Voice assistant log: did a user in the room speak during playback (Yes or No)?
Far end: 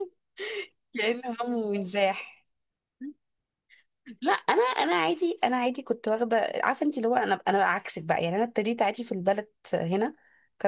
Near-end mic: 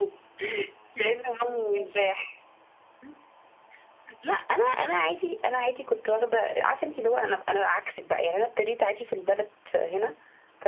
No